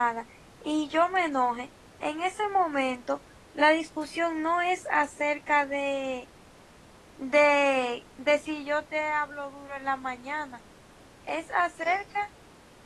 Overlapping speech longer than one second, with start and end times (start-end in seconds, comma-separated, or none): none